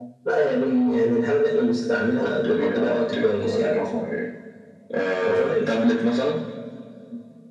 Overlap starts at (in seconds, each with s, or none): 2.1 s